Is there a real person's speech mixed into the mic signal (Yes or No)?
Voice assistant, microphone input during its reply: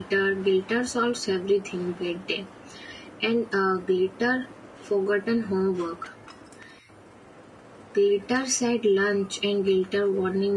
Yes